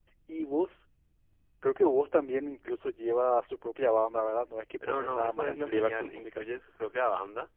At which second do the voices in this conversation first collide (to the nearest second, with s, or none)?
5 s